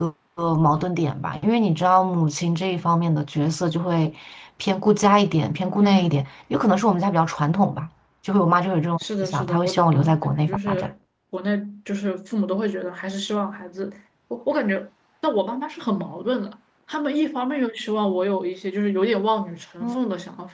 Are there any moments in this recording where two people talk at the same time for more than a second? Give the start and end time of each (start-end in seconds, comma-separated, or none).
9.0-10.9